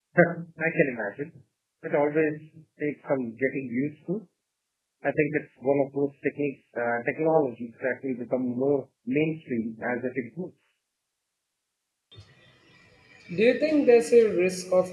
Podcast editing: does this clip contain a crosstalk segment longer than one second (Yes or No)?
No